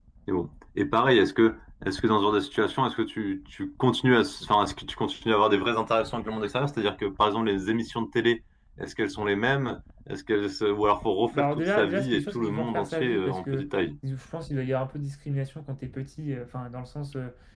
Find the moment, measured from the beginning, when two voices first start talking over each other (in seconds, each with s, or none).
11.3 s